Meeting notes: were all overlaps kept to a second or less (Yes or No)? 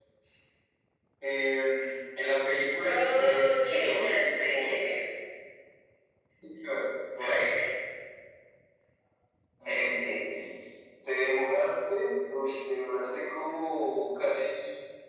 No